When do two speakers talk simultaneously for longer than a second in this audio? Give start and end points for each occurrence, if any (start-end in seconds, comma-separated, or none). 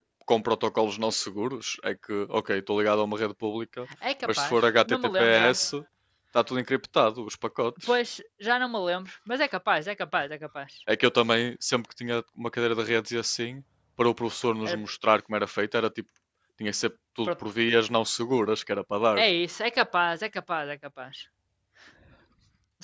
4.2-5.6